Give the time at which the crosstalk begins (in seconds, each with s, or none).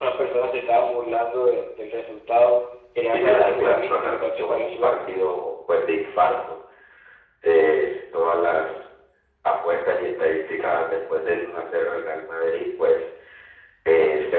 3.1 s